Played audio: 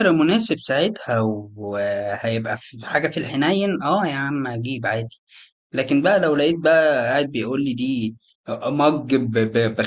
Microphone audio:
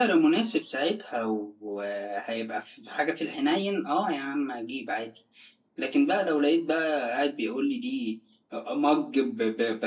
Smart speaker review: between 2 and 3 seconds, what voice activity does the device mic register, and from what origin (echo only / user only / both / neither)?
echo only